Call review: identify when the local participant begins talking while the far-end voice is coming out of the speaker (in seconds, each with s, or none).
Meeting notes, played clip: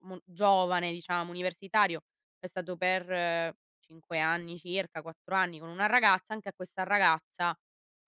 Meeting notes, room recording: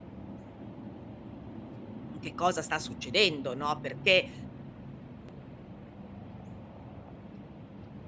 2.2 s